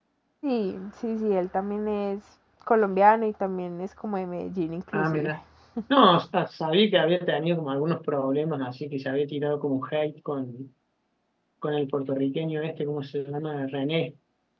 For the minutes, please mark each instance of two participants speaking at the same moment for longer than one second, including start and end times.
none

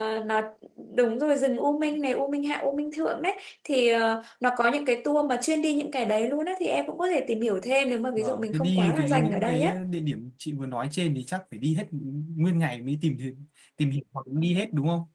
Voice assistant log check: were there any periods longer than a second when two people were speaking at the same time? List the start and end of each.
8.2-9.8

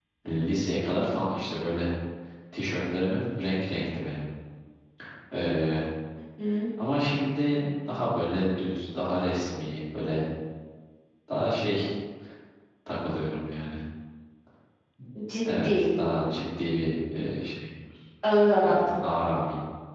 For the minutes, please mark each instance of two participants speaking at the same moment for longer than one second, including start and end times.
none

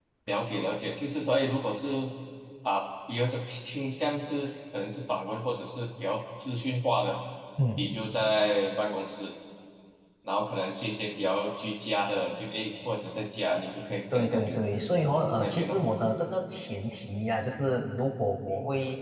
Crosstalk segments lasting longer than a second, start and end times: none

